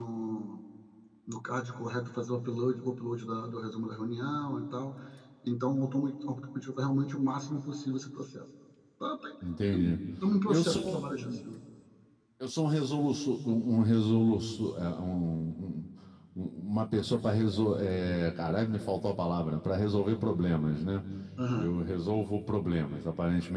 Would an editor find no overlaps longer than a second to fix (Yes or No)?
Yes